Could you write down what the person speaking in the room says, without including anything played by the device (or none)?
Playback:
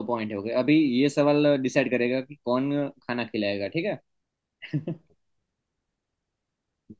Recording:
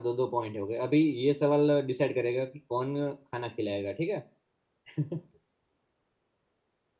none